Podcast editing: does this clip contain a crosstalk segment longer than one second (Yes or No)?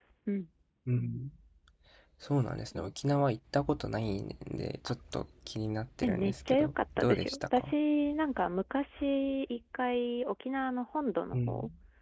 Yes